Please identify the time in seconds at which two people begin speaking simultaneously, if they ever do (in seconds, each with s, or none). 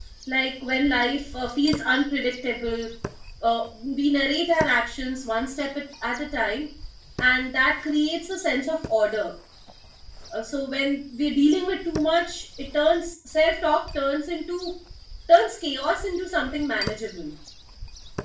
none